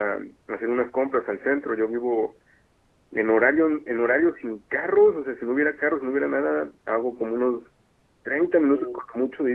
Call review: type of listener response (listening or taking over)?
listening